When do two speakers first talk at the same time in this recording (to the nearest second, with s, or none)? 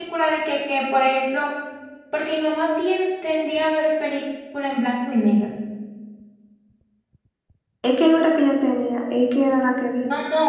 none